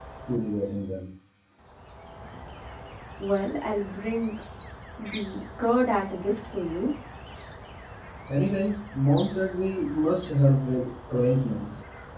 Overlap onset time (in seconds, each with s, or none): none